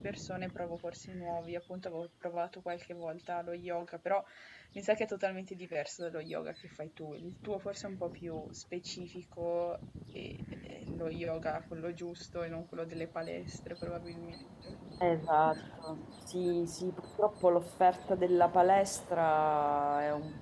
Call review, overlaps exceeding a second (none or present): none